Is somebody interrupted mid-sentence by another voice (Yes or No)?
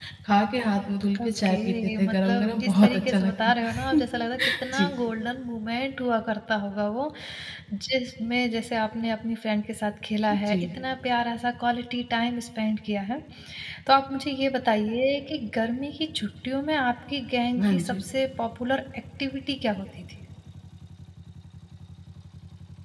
Yes